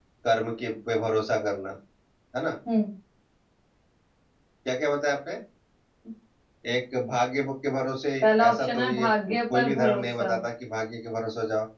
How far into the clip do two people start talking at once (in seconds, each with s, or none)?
8.5 s